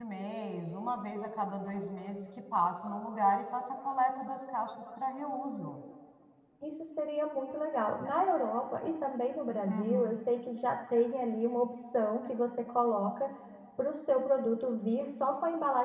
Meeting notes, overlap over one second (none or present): none